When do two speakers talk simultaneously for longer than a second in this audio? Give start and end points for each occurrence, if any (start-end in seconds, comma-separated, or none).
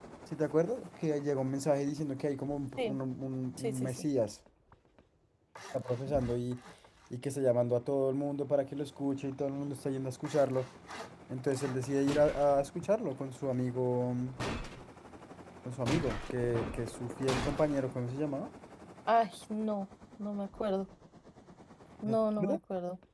none